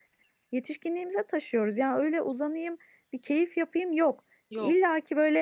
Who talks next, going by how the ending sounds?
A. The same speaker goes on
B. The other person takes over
A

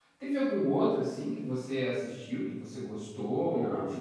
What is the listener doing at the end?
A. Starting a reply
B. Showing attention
A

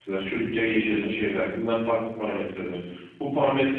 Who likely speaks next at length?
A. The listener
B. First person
B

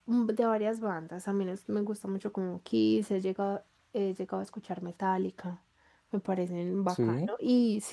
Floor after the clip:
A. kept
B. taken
A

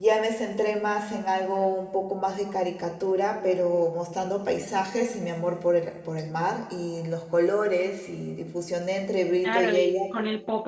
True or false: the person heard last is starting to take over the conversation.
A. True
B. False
A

